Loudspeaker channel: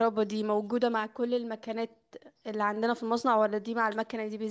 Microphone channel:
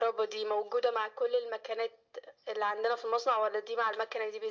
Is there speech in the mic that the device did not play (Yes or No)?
No